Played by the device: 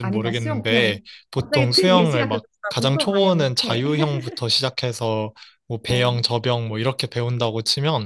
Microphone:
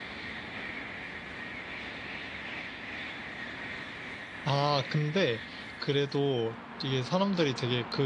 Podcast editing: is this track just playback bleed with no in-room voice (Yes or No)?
No